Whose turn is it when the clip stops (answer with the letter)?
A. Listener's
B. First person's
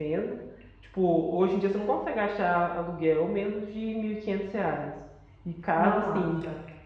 B